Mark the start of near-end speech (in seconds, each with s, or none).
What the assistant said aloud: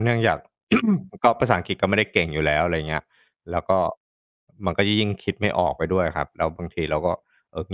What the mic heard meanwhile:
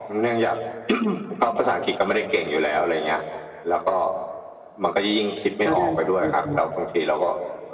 5.6 s